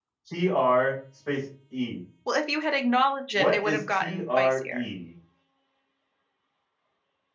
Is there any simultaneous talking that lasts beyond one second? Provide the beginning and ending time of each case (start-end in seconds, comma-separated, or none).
3.3-4.9